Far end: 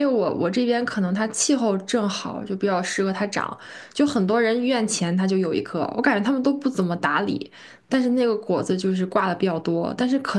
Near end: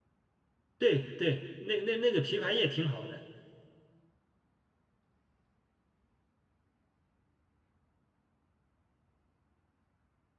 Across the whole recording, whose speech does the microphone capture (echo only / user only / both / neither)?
user only